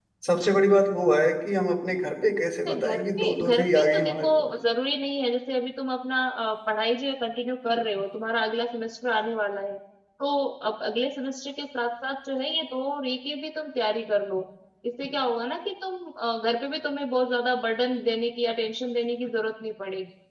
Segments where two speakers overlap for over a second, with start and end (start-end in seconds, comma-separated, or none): 2.7-4.5